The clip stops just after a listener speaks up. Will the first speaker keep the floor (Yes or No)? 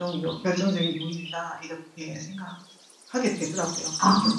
No